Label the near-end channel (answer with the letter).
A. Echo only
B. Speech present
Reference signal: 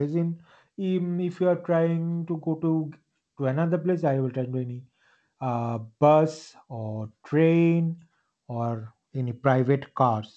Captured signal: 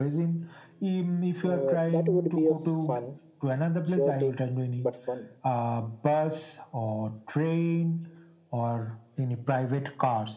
B